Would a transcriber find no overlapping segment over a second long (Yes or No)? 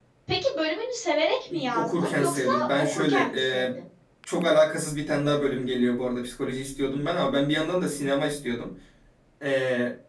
No